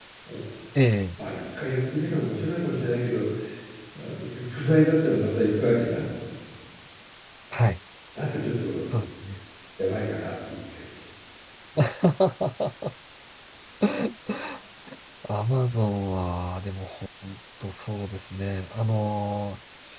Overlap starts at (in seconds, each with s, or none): none